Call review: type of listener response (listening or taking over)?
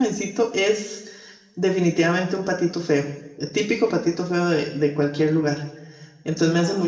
listening